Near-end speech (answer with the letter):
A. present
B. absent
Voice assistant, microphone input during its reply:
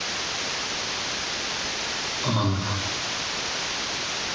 A